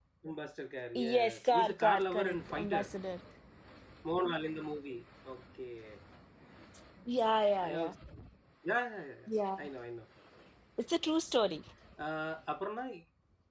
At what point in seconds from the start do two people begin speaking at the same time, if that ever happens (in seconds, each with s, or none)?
1.0 s